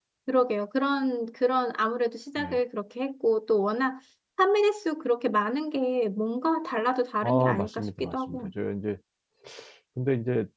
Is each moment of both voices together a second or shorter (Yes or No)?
No